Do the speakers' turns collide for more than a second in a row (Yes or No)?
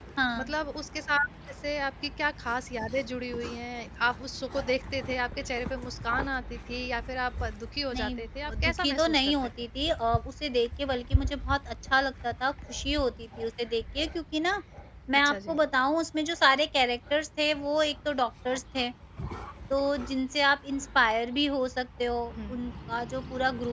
Yes